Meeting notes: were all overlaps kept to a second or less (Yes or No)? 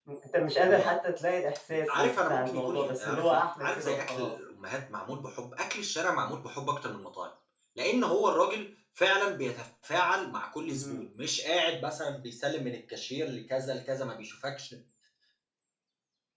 No